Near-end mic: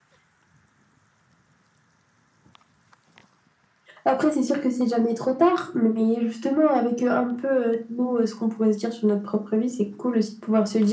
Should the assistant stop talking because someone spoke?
No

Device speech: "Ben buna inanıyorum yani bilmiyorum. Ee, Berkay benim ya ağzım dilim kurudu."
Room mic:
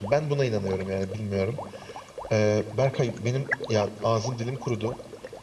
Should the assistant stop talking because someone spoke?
No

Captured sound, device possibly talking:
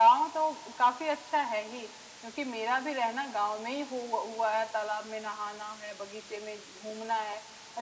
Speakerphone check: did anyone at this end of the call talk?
No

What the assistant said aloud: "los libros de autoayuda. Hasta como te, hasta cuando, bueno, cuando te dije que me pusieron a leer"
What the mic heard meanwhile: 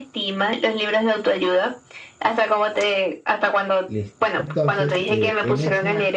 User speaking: Yes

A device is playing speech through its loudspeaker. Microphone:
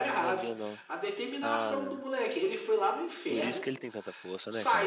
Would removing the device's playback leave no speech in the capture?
No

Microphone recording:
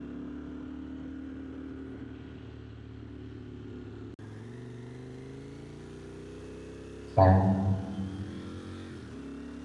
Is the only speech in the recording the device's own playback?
No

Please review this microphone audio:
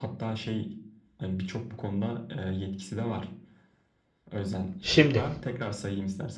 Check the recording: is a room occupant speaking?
Yes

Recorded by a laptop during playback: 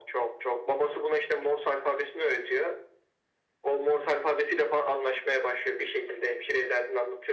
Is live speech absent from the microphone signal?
Yes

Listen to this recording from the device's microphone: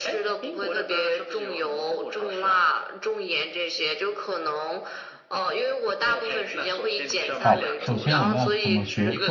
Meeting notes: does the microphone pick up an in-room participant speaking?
Yes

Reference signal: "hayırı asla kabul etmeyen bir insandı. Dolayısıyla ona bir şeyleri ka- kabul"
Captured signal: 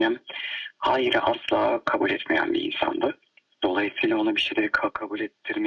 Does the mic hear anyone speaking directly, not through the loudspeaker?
No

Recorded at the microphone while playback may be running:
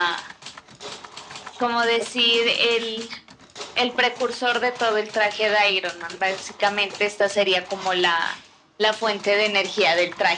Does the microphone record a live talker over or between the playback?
No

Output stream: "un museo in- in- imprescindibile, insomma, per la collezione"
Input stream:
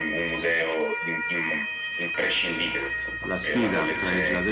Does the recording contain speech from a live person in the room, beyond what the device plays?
Yes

